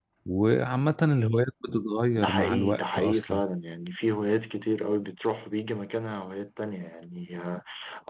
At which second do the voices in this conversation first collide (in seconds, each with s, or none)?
2.1 s